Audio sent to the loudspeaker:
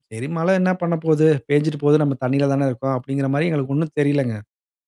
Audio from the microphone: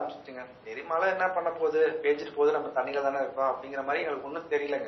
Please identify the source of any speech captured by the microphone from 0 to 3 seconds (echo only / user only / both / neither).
echo only